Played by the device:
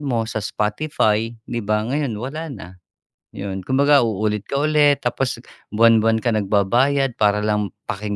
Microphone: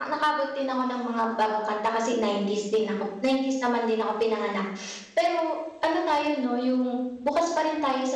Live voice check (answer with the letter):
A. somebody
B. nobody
A